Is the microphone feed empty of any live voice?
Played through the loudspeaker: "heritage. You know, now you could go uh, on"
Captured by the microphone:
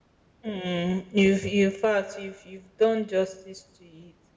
No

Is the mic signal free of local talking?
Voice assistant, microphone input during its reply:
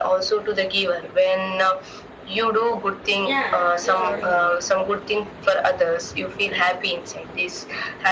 No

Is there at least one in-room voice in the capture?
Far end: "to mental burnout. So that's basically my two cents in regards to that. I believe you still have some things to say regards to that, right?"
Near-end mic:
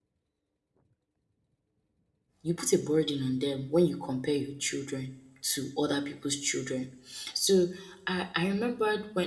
Yes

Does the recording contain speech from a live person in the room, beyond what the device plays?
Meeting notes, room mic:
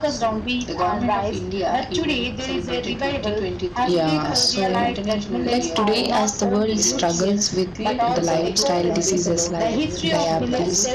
Yes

